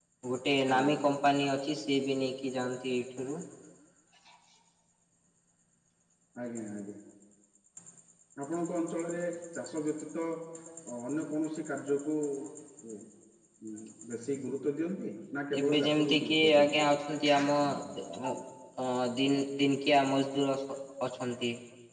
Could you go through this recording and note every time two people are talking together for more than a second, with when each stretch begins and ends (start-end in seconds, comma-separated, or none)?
15.6-16.9